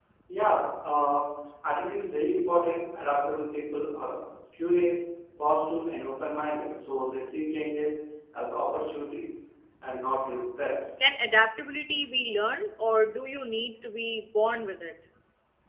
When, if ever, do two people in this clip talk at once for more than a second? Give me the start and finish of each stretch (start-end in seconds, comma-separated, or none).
none